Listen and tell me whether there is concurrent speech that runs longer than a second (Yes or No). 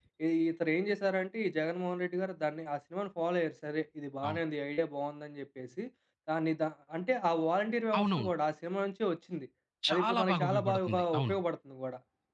Yes